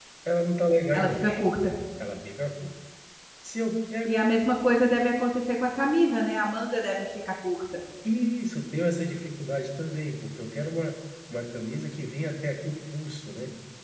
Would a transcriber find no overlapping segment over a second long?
Yes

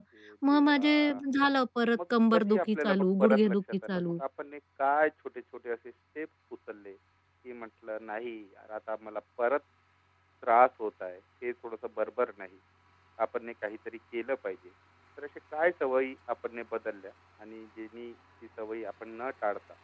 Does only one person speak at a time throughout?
No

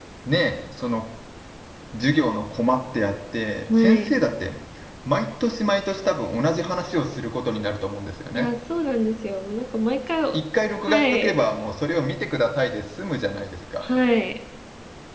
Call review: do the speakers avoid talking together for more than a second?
Yes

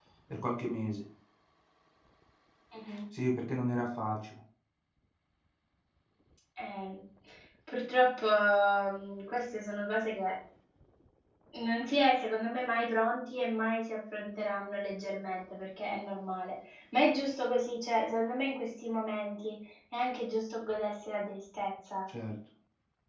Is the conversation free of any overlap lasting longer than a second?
Yes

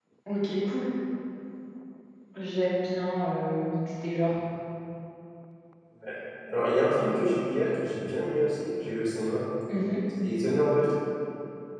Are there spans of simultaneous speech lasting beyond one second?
No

